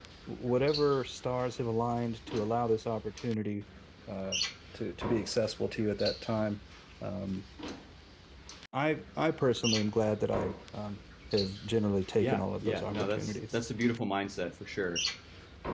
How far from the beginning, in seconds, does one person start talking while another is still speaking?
12.2 s

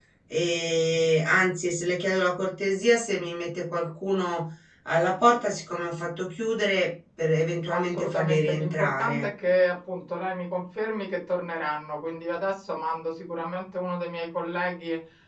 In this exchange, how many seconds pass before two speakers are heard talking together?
7.7 s

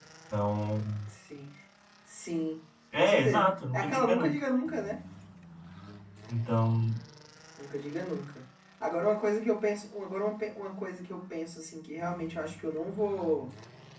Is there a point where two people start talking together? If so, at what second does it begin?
2.9 s

